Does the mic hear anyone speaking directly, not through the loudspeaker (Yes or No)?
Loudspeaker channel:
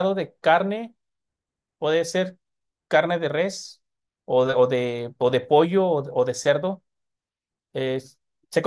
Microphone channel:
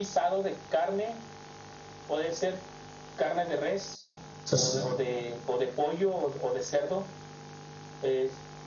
Yes